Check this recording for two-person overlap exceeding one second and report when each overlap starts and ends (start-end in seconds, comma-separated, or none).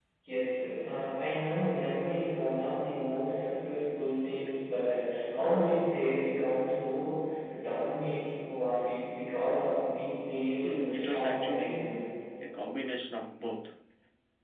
10.6-11.9